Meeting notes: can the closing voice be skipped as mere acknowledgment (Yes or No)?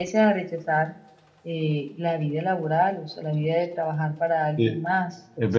No